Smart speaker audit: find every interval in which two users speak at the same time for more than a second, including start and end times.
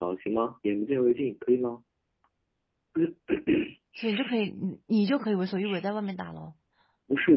none

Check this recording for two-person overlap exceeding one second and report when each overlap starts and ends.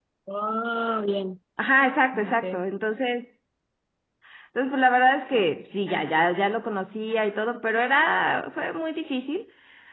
none

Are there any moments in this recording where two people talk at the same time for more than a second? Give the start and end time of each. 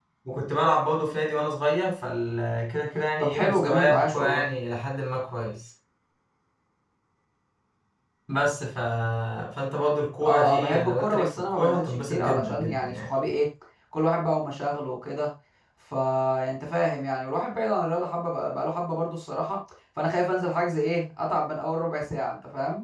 3.2-4.4, 10.2-13.1

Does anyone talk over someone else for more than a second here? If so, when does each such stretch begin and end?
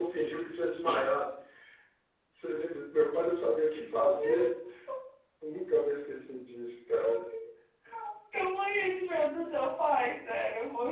none

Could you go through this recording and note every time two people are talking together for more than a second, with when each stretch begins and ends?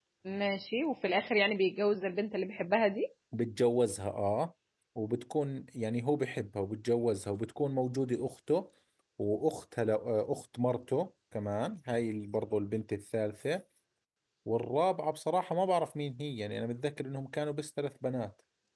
none

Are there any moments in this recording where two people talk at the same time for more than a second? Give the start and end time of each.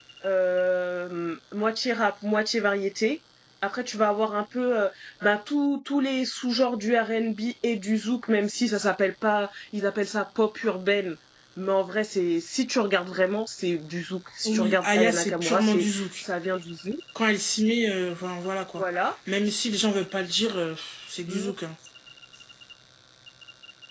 14.4-16.2

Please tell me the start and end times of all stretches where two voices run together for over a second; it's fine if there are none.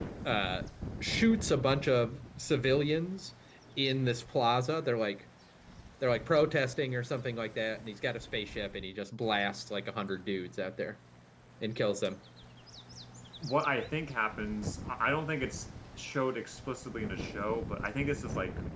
none

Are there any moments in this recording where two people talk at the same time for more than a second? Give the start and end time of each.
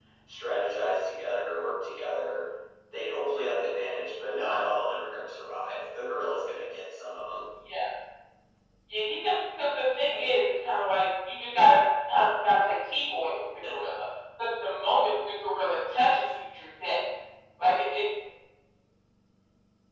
none

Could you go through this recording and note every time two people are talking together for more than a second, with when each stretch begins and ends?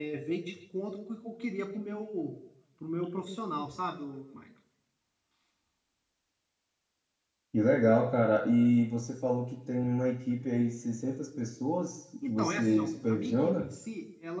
12.2-13.7

